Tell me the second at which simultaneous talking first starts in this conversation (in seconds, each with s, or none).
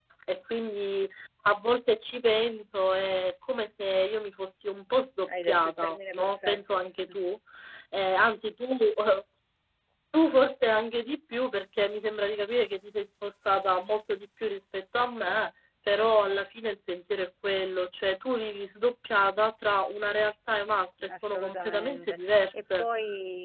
5.5 s